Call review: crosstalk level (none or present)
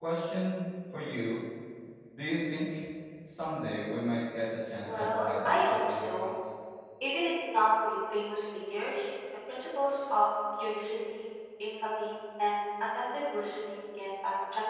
present